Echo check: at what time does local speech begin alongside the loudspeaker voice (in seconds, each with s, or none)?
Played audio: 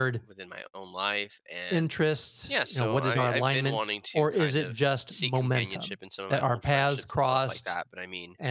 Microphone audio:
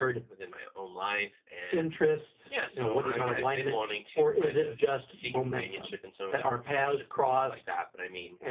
none